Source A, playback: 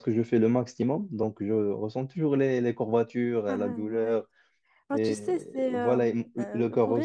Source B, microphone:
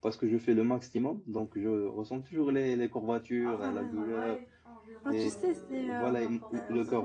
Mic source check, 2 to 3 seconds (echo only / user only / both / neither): echo only